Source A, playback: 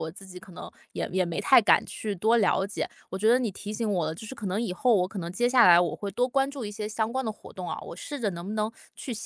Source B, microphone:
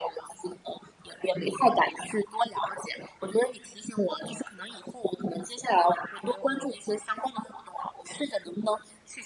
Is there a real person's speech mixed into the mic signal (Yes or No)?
Yes